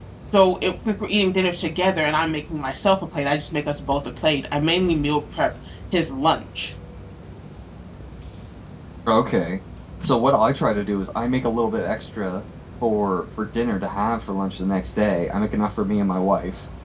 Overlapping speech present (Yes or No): No